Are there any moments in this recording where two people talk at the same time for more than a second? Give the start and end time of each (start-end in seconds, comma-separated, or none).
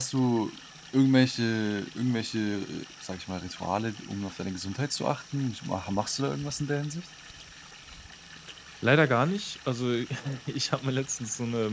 none